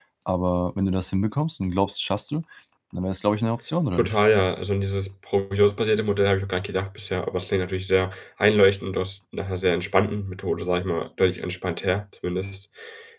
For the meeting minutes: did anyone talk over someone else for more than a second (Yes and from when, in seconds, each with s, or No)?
No